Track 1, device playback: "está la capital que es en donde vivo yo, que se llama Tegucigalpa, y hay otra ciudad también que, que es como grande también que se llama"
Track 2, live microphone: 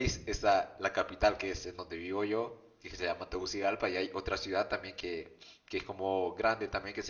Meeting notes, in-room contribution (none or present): none